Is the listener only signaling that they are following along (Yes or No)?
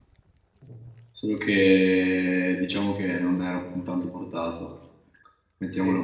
Yes